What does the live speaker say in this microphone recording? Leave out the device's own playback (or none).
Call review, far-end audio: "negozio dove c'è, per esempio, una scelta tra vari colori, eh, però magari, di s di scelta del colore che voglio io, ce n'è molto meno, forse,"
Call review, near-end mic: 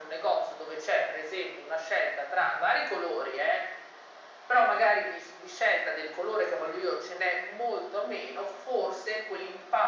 none